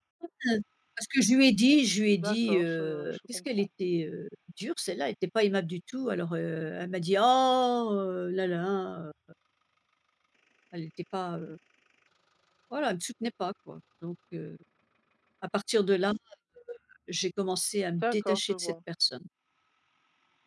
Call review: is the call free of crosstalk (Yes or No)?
No